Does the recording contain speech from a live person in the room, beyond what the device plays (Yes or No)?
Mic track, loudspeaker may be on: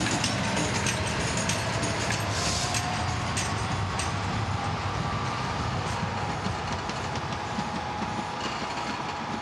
No